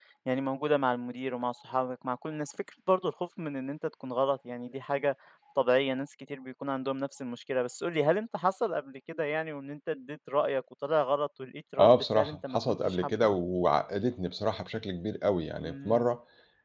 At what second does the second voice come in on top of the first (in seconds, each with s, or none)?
11.8 s